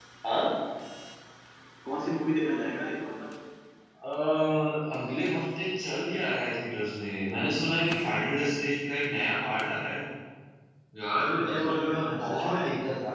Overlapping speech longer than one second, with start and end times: 11.3-12.6

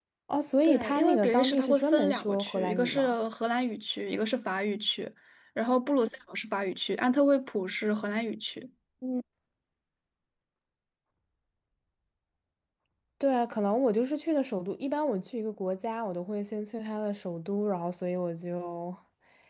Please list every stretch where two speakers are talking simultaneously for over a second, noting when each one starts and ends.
0.6-3.1

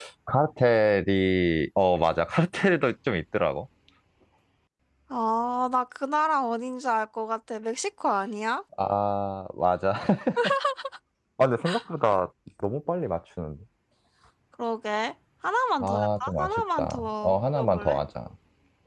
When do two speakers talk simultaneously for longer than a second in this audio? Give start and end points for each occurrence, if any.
15.8-18.0

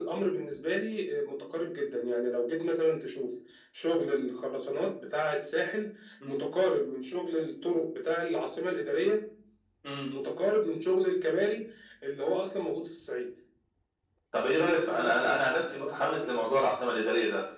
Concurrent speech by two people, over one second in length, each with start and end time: 14.5-16.3

